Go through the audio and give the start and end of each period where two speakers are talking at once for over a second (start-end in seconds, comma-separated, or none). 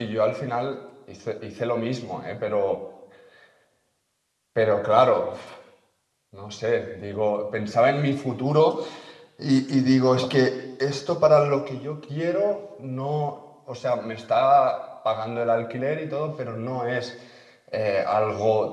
none